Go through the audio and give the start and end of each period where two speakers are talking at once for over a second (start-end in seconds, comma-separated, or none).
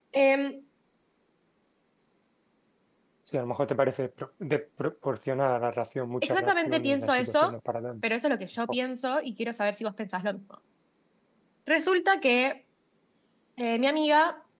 6.2-7.5